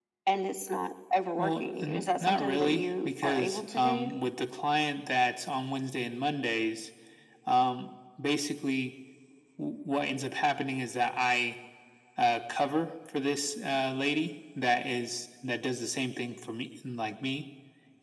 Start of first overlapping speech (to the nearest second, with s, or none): 1 s